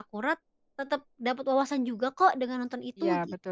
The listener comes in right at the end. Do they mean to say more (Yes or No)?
Yes